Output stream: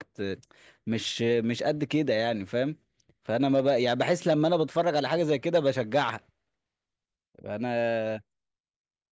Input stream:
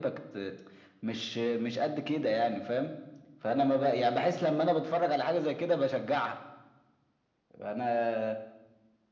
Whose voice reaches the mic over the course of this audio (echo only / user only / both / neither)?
echo only